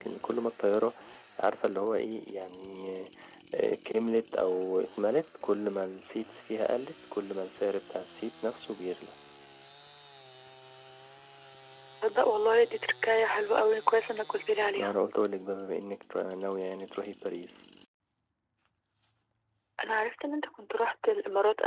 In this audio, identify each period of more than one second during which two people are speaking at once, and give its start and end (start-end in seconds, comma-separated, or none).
none